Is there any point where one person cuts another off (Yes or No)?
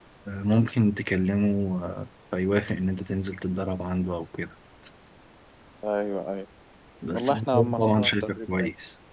Yes